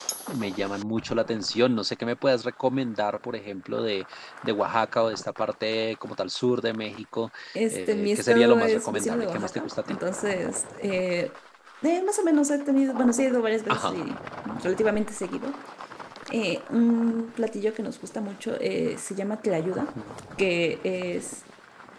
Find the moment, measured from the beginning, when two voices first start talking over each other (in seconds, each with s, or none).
7.7 s